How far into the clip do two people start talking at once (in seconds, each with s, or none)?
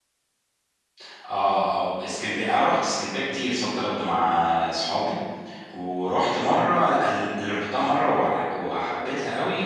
none